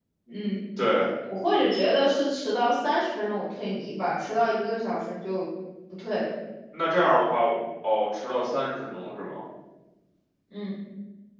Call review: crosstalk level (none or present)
none